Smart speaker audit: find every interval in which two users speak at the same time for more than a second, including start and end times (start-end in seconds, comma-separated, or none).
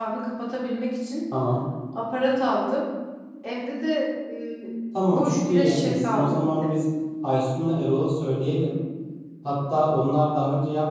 5.1-6.7